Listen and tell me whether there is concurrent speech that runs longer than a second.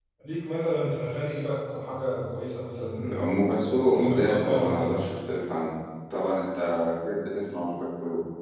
Yes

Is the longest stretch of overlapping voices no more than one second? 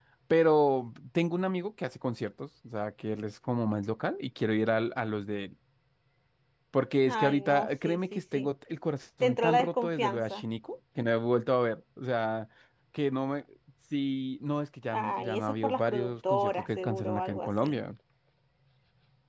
No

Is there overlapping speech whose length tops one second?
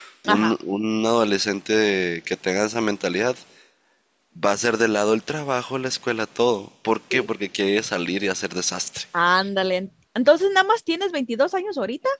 No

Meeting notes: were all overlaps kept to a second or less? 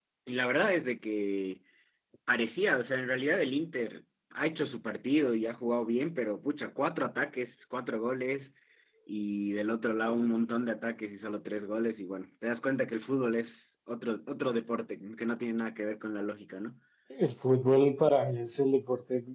Yes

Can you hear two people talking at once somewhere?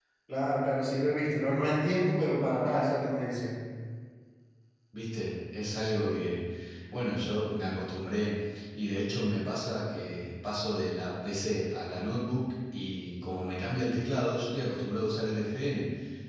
No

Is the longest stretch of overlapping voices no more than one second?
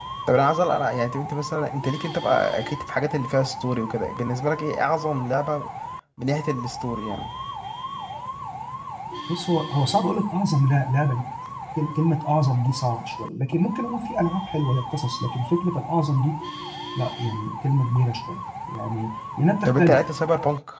Yes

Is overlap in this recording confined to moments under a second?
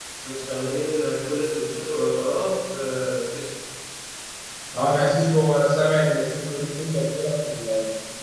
Yes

